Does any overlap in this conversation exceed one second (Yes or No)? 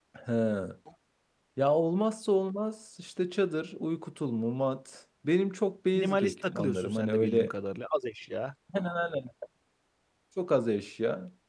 Yes